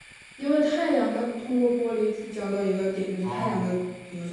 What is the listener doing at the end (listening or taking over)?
listening